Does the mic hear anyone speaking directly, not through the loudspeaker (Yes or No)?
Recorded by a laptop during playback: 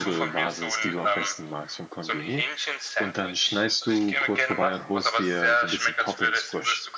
Yes